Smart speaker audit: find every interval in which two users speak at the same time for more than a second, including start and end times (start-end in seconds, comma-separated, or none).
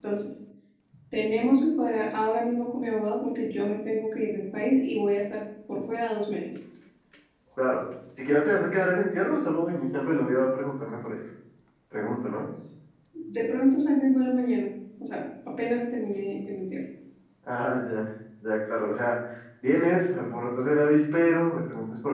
none